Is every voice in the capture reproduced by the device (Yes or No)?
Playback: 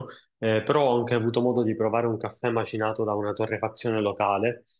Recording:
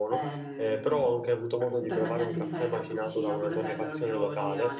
No